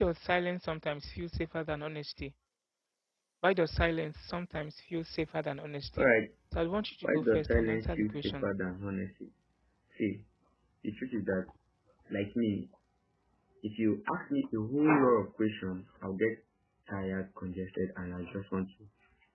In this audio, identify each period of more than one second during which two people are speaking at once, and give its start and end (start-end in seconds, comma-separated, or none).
7.0-8.5